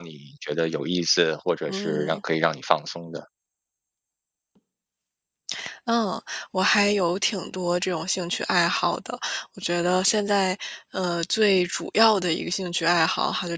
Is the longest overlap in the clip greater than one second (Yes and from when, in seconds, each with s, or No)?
No